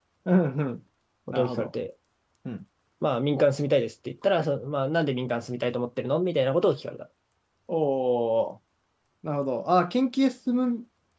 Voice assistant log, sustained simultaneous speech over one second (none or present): none